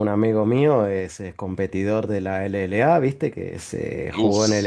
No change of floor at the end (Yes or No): Yes